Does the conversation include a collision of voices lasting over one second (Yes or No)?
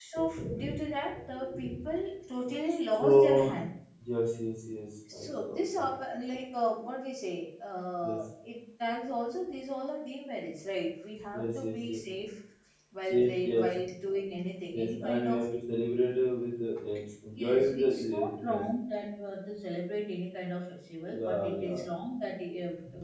Yes